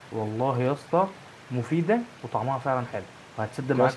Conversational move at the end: taking over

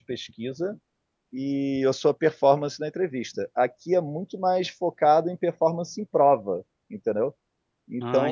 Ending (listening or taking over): listening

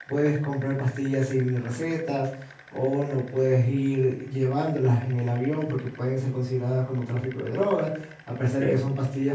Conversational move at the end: listening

